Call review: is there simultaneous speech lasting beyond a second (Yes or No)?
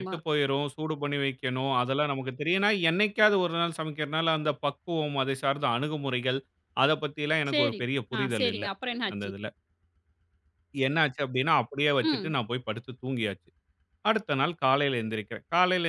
No